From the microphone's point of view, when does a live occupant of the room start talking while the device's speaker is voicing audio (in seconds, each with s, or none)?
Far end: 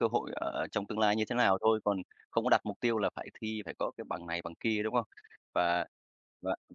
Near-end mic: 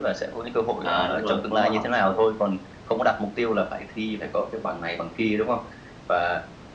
0.8 s